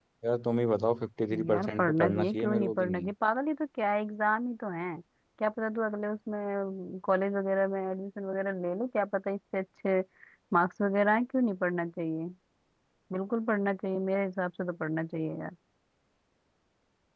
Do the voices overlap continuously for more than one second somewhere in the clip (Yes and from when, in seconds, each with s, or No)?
Yes, from 1.3 s